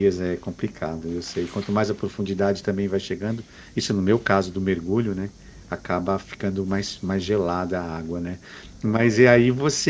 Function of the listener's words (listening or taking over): listening